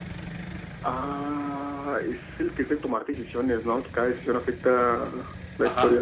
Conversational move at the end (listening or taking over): taking over